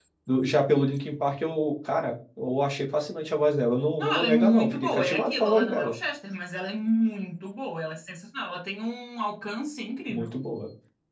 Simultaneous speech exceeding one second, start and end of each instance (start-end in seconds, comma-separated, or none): 4.0-6.0